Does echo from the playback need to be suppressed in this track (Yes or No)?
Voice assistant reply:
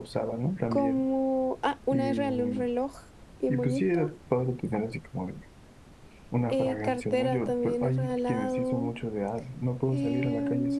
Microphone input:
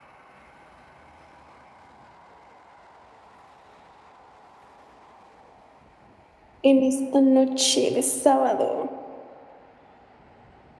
No